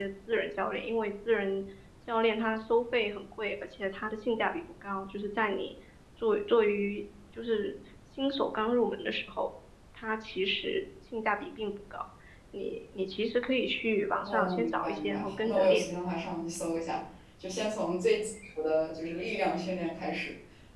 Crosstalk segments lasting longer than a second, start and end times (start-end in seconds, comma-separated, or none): 14.2-15.8